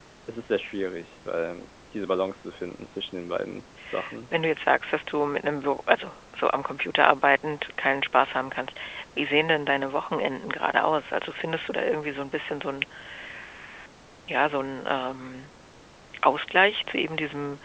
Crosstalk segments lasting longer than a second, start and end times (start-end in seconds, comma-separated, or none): none